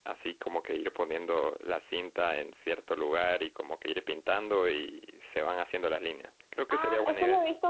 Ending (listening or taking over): taking over